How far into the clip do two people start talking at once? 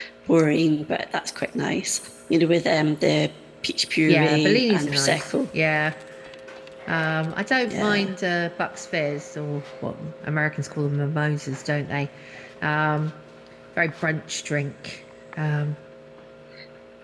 4.1 s

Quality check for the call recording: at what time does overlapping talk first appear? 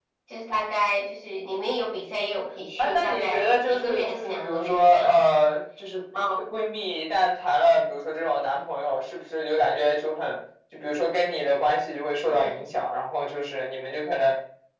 2.8 s

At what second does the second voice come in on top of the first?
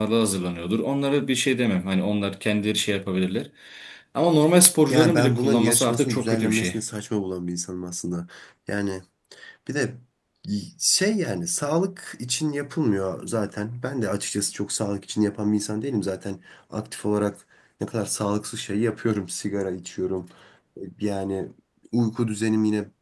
4.9 s

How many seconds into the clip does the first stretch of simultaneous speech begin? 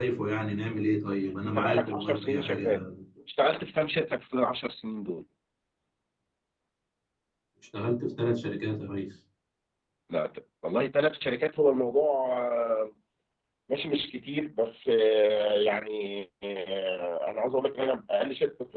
1.4 s

